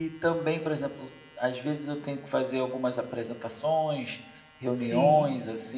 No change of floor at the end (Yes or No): Yes